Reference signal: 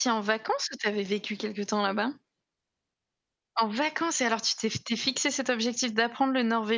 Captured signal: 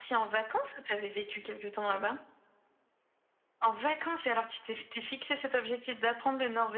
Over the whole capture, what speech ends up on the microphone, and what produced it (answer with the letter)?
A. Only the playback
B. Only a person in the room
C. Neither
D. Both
A